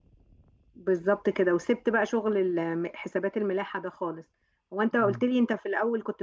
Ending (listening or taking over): listening